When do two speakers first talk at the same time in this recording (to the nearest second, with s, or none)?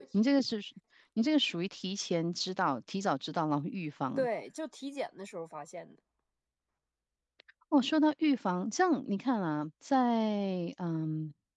none